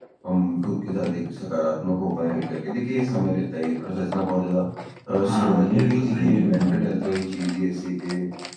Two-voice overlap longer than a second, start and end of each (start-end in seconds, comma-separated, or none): 5.2-6.8